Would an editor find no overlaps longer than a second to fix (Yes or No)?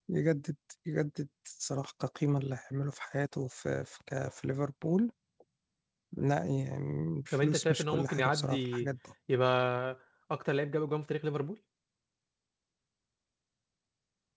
No